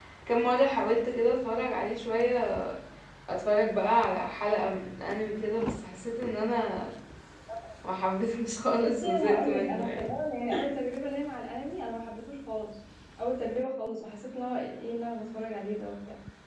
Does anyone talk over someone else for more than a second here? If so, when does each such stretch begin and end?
8.9-10.1

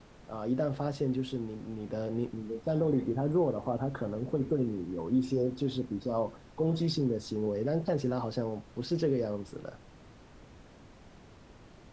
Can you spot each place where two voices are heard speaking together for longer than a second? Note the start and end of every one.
none

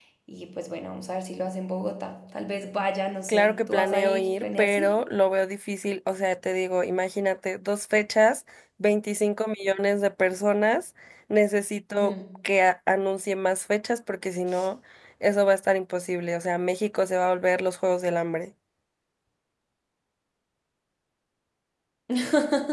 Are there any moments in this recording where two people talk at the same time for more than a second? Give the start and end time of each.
3.3-5.0

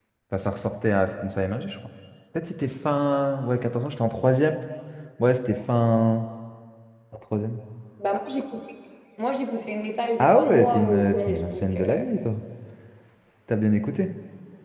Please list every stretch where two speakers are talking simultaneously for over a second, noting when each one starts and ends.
10.2-12.1

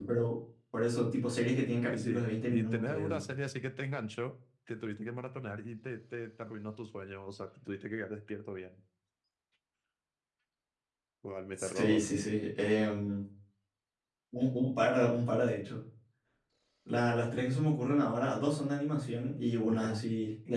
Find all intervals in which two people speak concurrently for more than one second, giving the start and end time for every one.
1.9-3.2

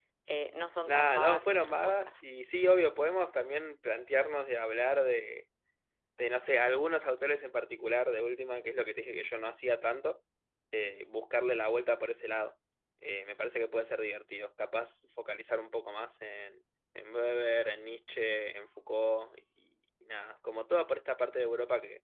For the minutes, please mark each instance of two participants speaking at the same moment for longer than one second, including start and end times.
0.8-2.1

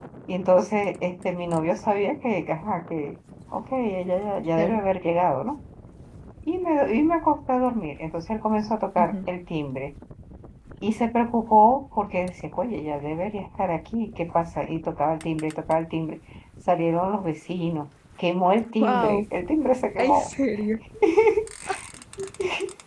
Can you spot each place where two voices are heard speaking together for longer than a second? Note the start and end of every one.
none

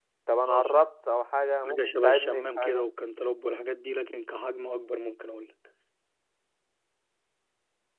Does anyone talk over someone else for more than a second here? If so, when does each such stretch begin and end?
1.6-2.9

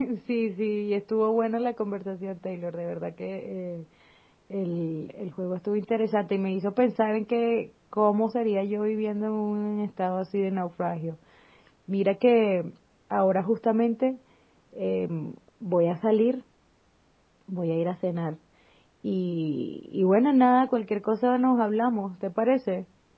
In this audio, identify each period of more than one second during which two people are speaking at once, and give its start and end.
none

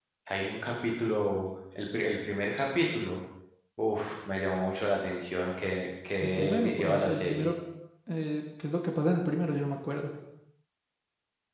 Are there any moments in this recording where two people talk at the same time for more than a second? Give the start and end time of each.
6.2-7.5

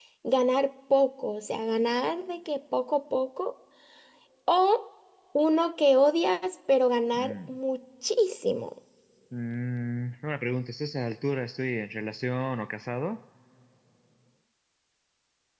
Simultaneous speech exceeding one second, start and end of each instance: none

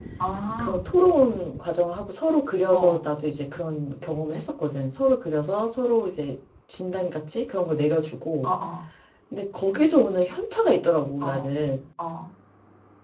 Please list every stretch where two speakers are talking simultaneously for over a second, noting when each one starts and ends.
none

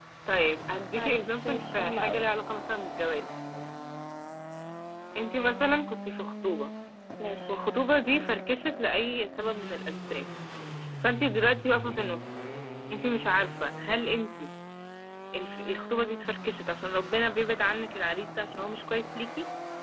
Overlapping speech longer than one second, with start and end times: 0.9-2.2

